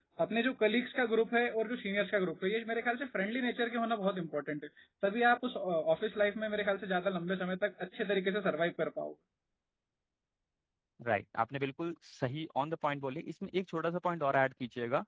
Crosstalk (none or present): none